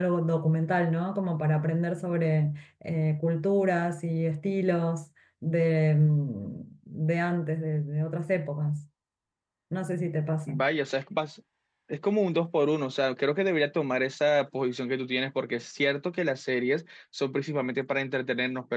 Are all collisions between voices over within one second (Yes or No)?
Yes